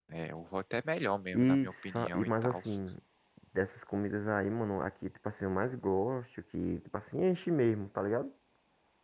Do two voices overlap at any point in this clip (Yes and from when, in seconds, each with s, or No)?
Yes, from 1.3 s